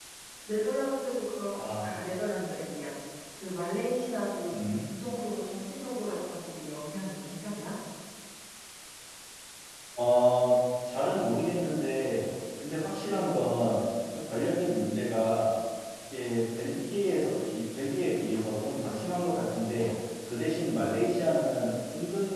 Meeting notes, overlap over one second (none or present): none